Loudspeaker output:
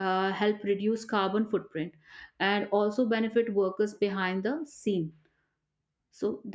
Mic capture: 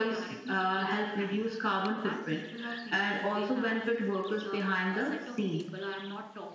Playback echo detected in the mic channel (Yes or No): Yes